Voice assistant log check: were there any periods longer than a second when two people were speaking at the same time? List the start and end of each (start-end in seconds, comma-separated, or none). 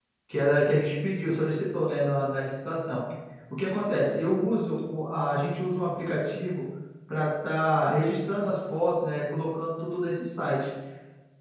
none